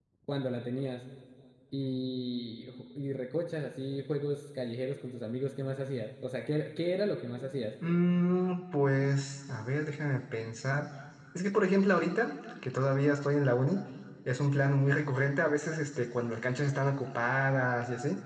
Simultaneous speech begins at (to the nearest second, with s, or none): none